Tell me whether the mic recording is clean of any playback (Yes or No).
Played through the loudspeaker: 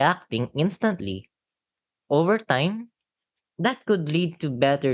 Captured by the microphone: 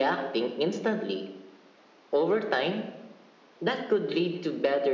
No